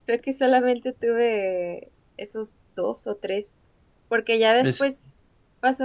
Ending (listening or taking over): listening